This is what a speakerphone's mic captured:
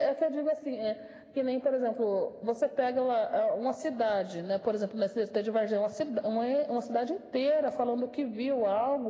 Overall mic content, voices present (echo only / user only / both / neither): echo only